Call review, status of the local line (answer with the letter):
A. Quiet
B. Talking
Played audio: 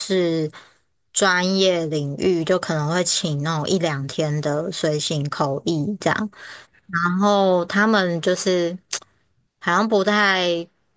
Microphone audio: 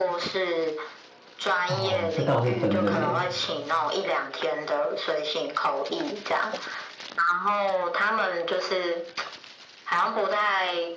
B